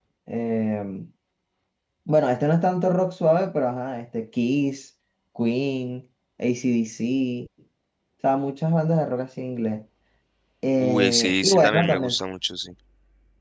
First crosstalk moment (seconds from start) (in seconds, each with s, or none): 10.8 s